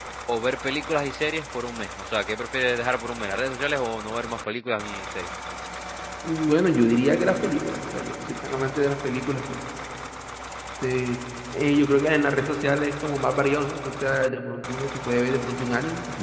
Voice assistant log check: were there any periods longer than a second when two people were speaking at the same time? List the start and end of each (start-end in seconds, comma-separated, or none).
none